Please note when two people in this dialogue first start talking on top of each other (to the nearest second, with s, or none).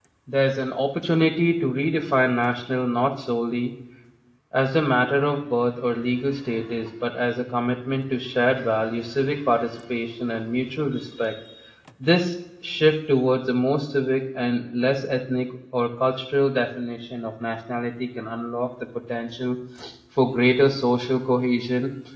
none